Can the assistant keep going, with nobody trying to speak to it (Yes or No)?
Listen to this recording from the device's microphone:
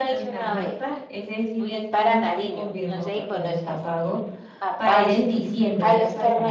No